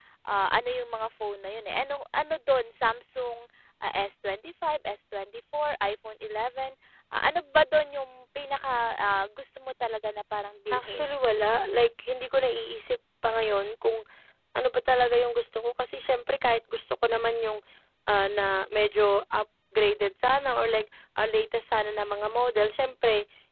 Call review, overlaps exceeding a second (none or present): none